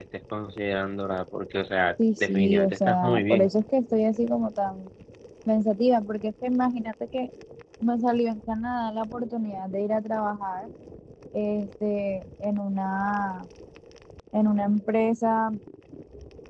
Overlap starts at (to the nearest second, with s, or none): 2 s